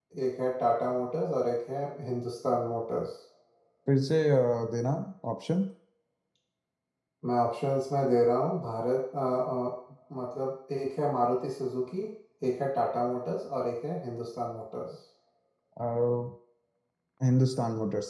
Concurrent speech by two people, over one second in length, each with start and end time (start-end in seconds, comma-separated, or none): none